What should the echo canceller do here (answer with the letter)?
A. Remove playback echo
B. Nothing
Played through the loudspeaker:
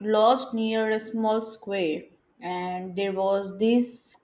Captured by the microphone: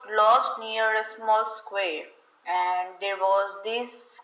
A